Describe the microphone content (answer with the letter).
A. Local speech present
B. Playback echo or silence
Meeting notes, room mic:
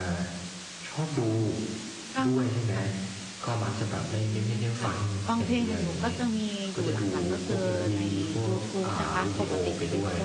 A